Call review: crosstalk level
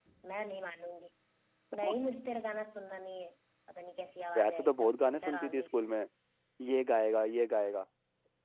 present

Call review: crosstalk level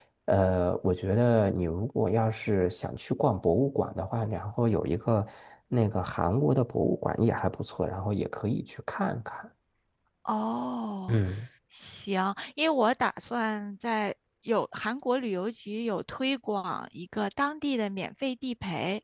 none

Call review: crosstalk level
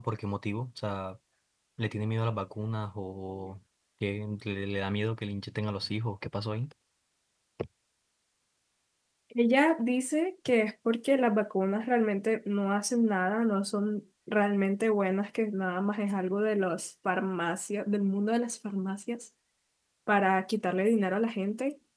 none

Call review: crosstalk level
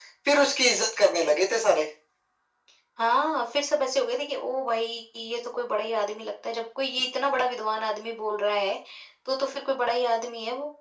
none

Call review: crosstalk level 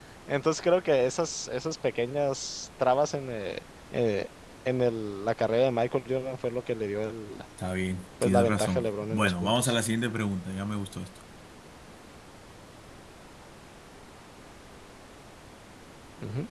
present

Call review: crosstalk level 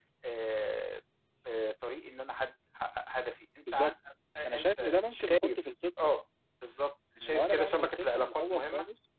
present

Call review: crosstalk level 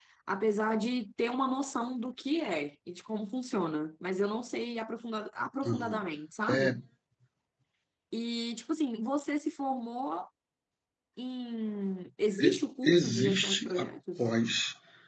present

